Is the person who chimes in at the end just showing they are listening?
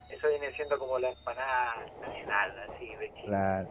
No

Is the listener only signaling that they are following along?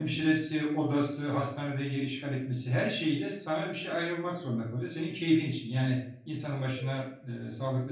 Yes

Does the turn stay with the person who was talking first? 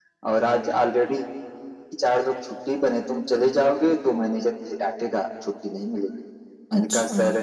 Yes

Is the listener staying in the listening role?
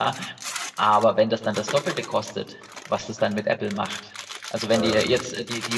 Yes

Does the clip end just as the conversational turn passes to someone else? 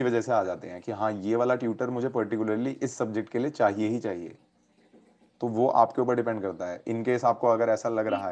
Yes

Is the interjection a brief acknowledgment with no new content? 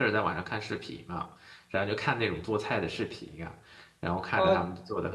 No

